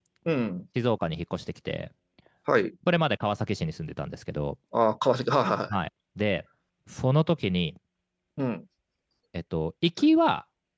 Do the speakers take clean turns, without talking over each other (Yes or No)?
Yes